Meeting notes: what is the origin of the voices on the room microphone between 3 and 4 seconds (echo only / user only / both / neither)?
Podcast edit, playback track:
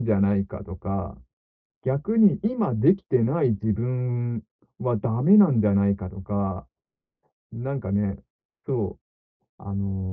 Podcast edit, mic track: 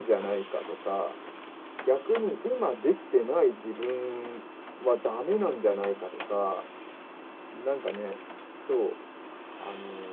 echo only